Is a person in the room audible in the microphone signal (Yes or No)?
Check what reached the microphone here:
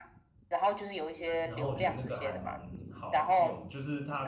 Yes